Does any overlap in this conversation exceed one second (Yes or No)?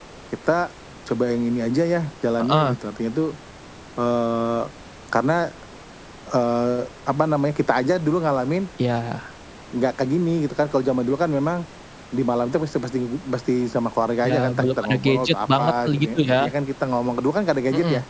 Yes